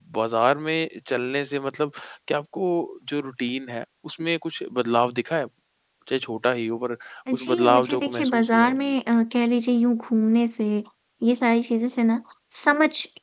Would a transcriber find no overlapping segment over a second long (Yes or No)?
No